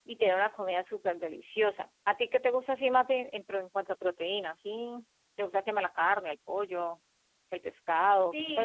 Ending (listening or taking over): taking over